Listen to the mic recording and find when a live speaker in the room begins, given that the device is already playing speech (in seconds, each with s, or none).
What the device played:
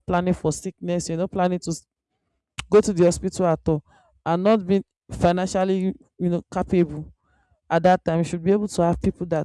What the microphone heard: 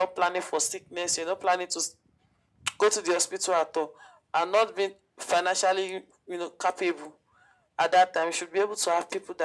none